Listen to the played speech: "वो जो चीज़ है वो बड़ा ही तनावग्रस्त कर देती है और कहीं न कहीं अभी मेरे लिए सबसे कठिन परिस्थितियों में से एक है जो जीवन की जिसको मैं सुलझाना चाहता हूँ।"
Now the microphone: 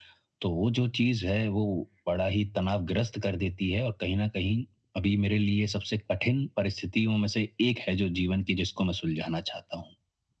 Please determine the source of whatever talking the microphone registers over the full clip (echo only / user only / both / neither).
echo only